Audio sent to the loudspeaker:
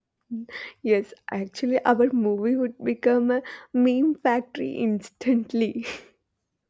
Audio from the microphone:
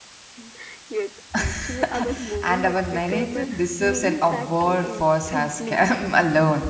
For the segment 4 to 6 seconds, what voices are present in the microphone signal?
both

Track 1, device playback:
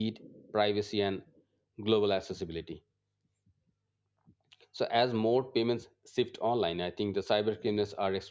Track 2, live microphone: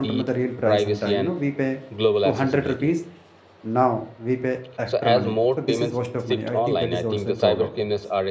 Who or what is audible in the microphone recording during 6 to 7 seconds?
both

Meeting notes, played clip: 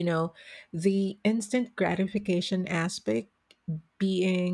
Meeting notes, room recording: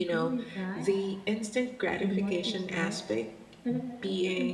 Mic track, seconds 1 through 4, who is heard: both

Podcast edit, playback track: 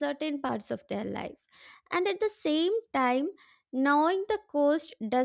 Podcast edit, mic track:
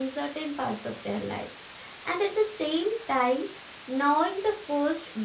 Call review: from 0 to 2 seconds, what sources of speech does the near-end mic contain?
echo only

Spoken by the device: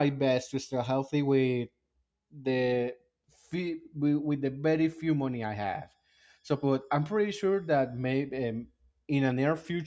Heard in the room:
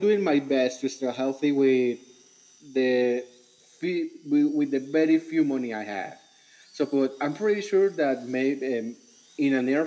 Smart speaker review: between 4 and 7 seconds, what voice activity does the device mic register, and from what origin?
echo only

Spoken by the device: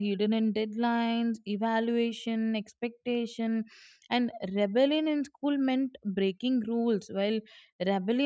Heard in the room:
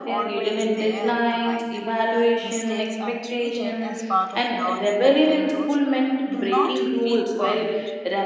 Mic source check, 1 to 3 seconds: both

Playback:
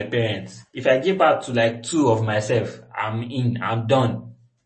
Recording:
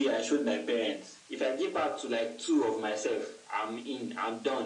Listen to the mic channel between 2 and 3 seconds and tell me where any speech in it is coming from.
echo only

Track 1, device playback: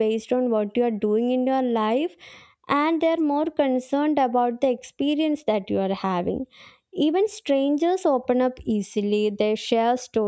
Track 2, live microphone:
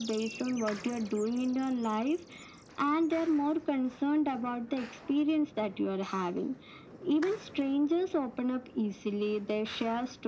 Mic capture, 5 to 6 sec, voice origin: echo only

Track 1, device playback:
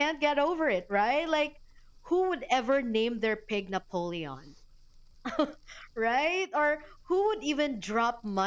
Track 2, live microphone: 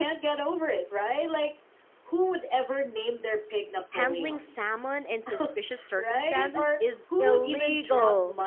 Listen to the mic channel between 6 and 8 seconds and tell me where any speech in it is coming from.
both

